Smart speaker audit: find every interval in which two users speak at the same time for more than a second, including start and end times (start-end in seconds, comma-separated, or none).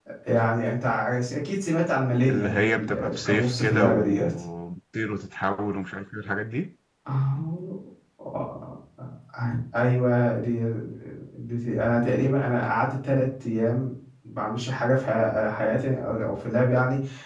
2.3-4.3